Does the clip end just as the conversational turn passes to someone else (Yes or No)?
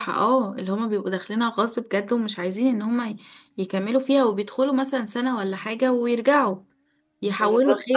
Yes